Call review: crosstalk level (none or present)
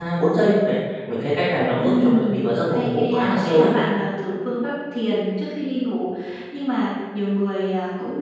present